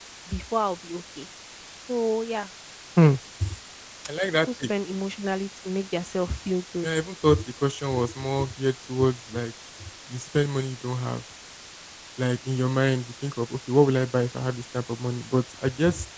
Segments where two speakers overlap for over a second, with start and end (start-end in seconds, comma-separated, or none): none